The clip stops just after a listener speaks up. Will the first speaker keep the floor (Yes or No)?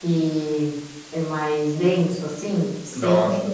No